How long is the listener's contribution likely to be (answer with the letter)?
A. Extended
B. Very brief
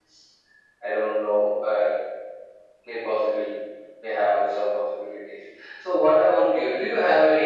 B